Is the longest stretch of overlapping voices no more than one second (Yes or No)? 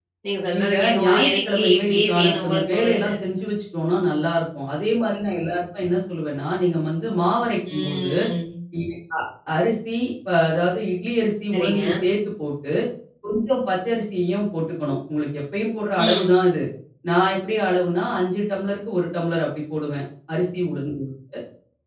No